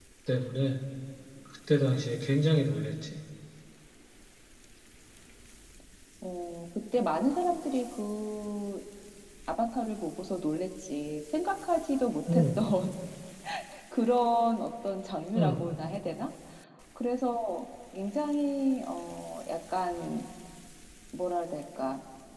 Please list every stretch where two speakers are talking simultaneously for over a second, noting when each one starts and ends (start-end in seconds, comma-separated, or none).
none